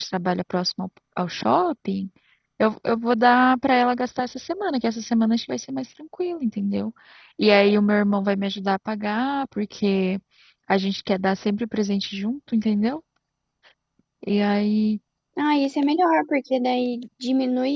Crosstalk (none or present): none